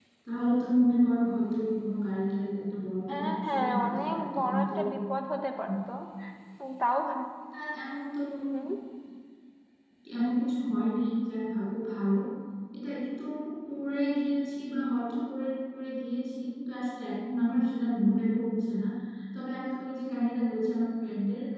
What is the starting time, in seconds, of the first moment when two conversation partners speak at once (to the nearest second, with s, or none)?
3 s